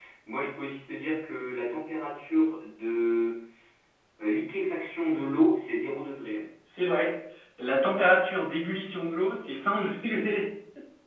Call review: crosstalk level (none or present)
none